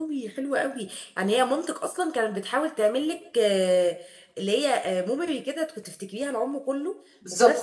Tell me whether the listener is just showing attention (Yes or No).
No